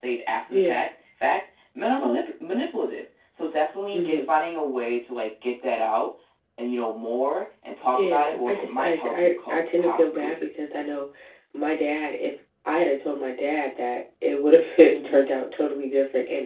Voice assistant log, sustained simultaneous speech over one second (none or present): present